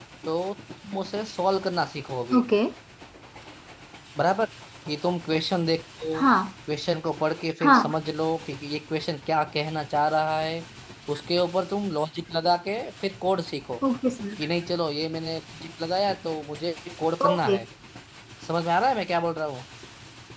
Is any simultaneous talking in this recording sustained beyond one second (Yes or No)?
No